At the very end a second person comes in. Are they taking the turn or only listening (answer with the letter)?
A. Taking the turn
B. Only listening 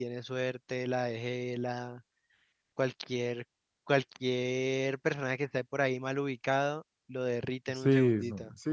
A